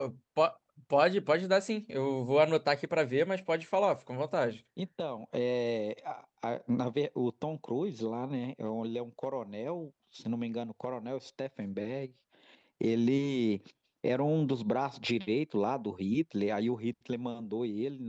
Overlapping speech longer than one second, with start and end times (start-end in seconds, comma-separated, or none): none